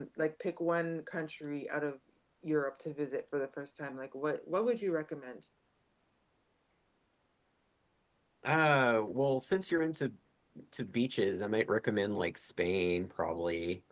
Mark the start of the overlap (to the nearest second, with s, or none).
none